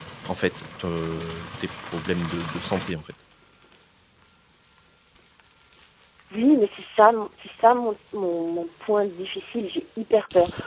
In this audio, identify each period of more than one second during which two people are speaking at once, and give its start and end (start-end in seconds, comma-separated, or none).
none